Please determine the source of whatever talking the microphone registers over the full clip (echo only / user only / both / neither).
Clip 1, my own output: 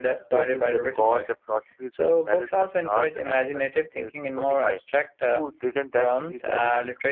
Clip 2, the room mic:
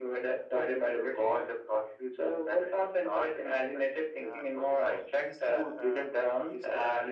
both